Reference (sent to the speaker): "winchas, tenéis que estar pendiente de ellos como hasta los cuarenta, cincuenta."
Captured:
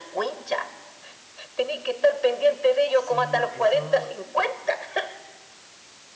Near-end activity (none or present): present